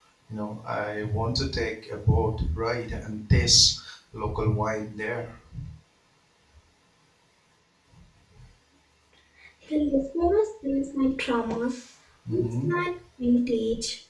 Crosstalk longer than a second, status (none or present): none